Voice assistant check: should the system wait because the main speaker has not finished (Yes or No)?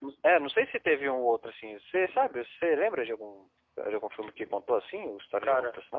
No